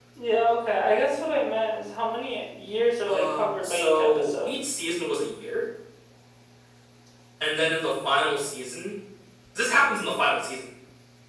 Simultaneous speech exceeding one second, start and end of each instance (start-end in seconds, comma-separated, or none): 3.1-4.5